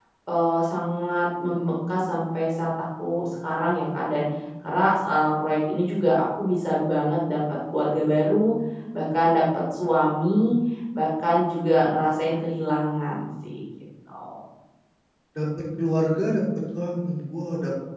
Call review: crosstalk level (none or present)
none